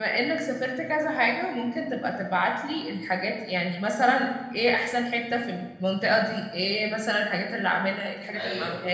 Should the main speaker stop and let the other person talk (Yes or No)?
No